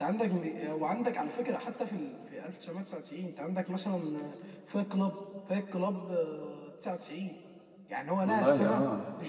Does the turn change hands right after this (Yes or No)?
No